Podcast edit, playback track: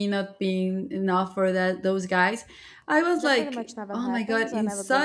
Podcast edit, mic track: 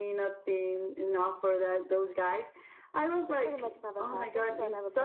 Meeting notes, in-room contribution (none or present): none